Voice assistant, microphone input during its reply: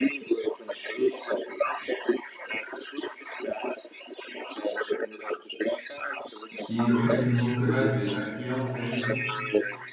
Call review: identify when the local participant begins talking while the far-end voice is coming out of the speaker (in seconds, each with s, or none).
6.7 s